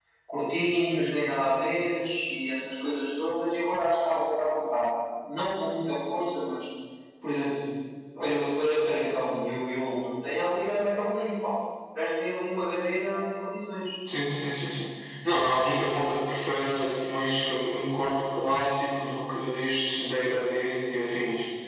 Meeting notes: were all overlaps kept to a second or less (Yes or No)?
Yes